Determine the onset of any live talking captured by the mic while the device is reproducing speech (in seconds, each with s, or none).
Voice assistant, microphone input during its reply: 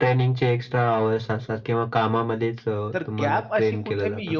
2.9 s